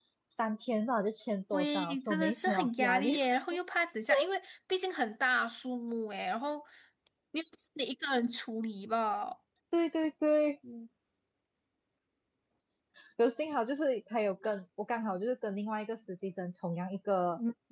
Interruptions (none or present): present